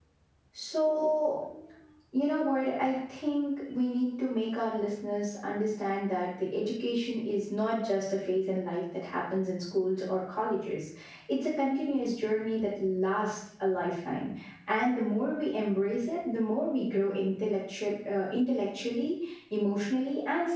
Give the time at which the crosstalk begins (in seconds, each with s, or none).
none